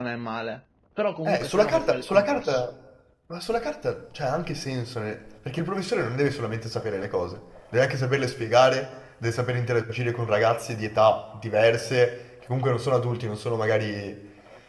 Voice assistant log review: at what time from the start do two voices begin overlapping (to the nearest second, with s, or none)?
1 s